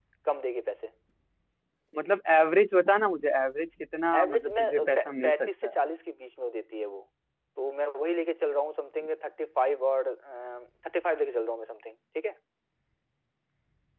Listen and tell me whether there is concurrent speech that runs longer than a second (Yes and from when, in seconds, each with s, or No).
Yes, from 4.1 s